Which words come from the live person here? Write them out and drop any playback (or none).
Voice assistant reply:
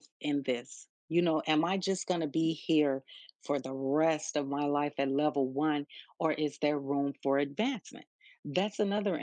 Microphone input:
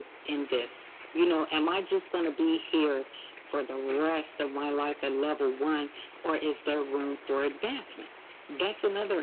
none